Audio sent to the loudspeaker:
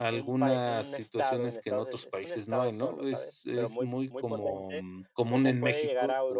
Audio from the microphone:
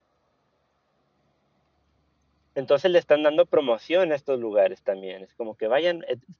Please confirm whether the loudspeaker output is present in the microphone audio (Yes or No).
No